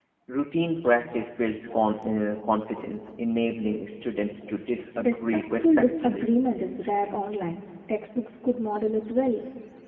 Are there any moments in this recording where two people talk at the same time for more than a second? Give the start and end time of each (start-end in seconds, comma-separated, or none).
5.0-6.3